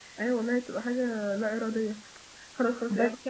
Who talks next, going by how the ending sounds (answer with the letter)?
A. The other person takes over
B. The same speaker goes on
B